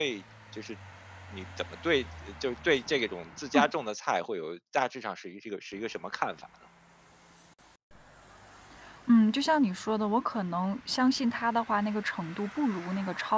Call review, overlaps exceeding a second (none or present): none